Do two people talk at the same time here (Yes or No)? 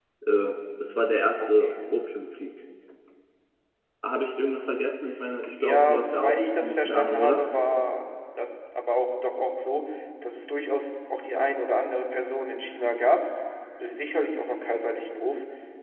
Yes